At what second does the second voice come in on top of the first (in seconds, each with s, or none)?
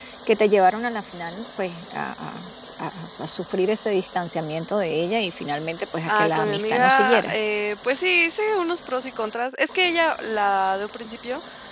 6.1 s